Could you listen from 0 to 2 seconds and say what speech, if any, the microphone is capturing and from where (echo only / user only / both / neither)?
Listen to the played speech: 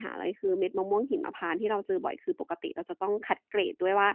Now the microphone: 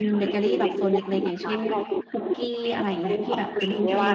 both